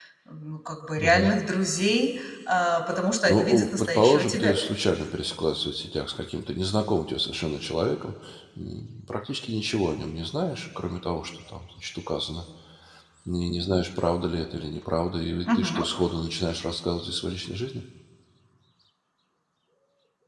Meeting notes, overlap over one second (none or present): present